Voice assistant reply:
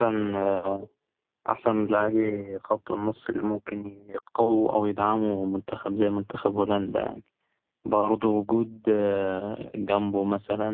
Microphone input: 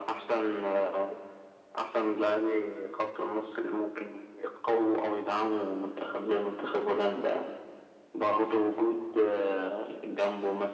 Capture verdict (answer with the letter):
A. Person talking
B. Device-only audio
B